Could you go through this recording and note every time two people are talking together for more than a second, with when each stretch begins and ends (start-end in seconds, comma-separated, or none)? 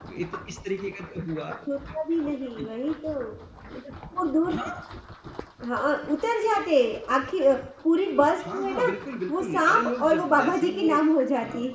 9.3-11.0